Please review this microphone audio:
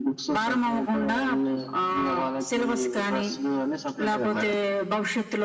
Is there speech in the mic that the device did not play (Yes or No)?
No